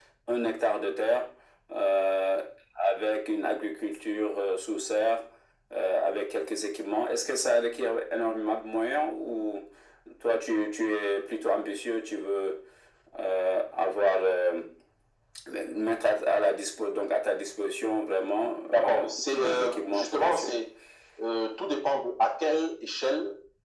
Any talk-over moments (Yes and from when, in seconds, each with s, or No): Yes, from 18.7 s